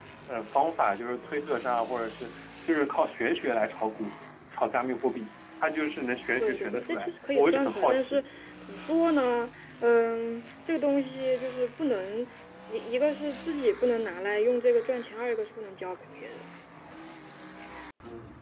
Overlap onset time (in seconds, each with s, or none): 6.4 s